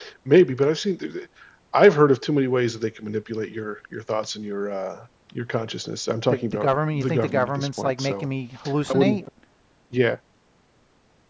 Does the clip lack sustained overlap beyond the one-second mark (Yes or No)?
No